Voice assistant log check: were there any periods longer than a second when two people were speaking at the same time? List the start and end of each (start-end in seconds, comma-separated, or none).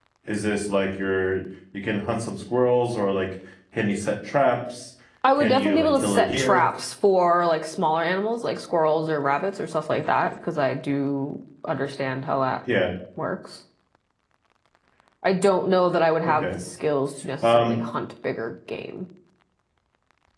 5.4-6.6